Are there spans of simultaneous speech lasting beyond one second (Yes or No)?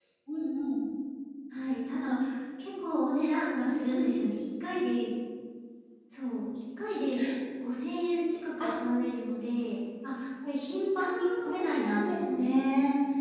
Yes